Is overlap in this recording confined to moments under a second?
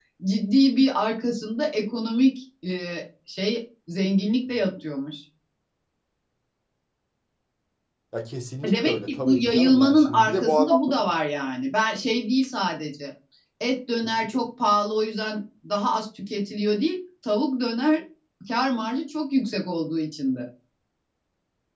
No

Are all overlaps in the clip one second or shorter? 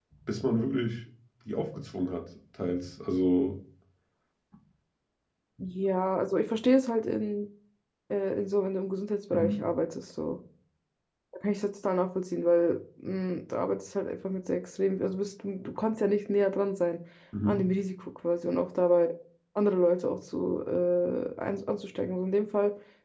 Yes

